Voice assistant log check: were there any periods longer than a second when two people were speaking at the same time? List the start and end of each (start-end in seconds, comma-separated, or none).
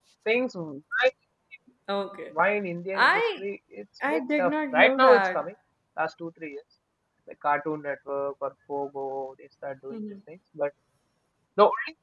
4.1-5.5